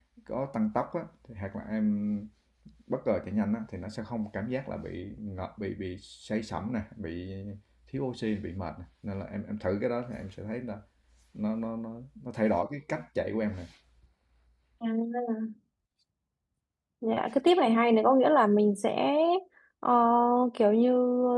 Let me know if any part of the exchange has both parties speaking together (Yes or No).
No